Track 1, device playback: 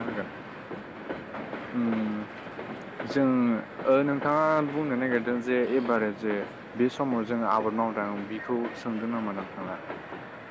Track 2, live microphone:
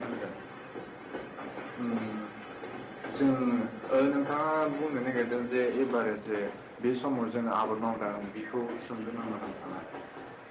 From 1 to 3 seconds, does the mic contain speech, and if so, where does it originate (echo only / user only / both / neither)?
echo only